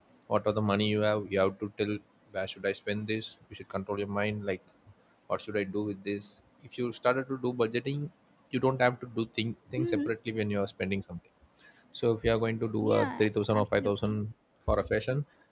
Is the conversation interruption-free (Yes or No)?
No